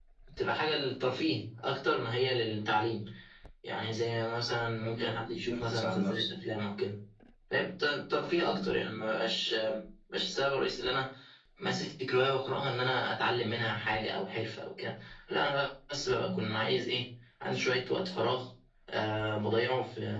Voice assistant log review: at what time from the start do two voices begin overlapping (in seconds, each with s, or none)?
4.8 s